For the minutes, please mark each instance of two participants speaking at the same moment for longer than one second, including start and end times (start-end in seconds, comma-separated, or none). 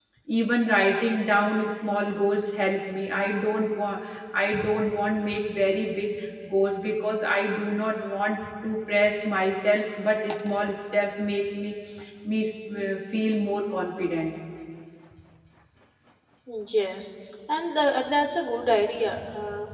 none